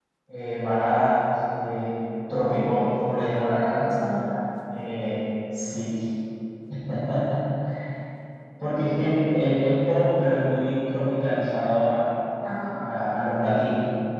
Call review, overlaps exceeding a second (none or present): none